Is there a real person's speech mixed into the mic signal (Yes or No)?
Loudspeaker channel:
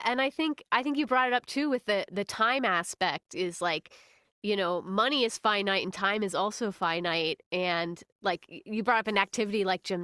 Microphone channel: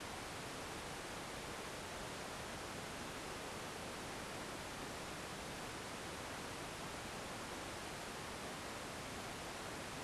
No